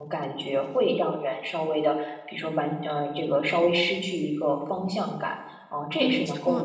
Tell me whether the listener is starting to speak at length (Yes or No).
No